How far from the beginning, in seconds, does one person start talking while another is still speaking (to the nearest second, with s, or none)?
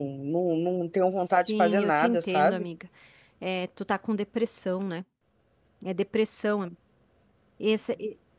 1 s